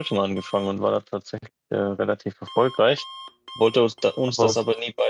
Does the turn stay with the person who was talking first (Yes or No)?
Yes